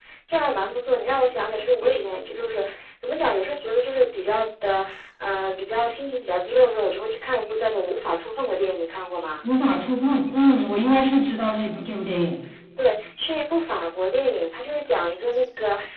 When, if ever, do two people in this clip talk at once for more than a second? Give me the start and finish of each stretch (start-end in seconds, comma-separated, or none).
none